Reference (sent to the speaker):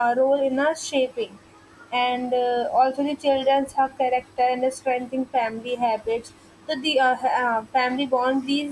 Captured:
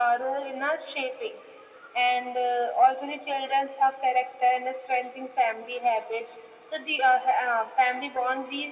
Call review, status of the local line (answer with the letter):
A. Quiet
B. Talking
A